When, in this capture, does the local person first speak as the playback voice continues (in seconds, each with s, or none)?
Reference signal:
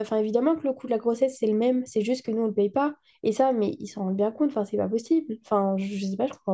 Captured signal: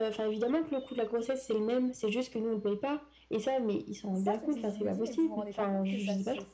4.1 s